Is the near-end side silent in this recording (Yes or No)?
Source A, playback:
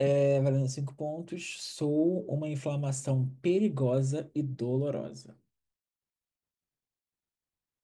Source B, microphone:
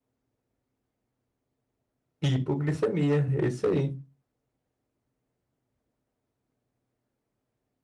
No